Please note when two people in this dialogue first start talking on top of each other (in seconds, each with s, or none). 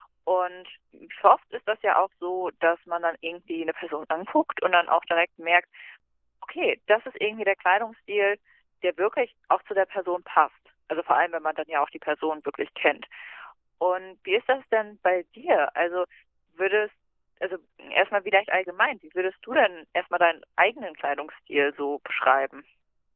none